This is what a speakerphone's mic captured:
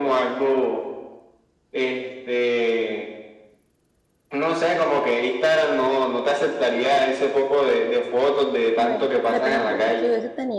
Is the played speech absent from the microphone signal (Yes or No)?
No